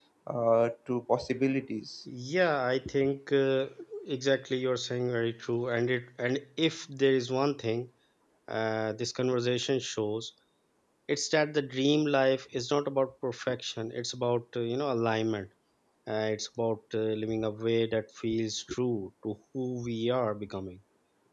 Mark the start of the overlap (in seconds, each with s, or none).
none